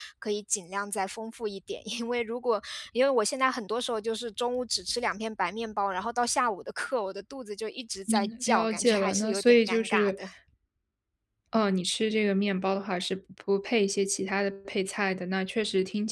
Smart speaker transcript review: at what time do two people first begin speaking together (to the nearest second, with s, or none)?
8 s